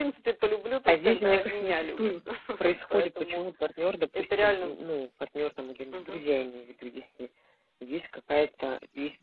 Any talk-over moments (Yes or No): Yes